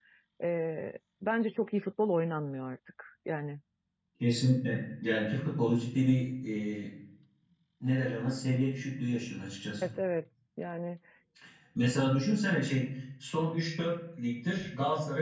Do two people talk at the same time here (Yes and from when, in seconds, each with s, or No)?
No